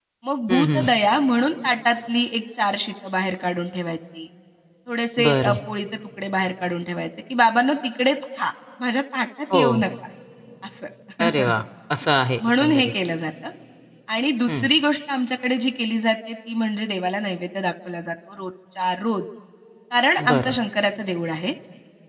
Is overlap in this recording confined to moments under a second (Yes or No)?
Yes